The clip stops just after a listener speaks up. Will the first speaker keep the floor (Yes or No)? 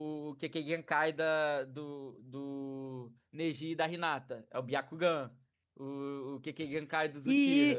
No